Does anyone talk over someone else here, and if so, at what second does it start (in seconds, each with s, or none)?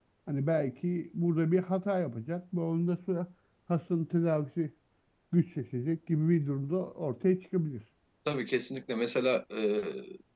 none